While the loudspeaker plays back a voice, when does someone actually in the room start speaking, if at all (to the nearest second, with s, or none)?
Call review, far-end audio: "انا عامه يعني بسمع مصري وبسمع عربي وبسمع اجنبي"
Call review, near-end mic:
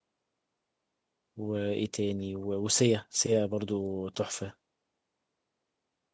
1 s